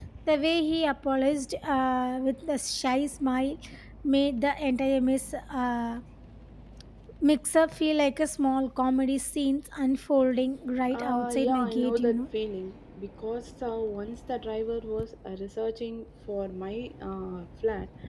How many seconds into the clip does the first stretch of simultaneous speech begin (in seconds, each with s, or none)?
10.9 s